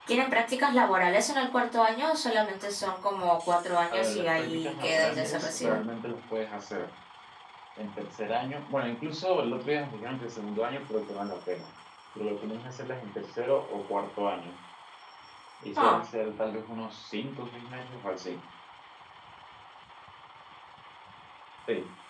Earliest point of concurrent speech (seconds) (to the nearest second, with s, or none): 4 s